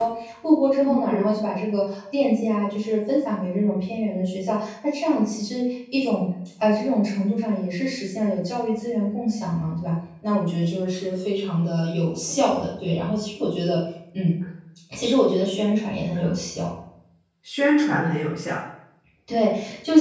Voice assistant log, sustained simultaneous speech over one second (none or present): none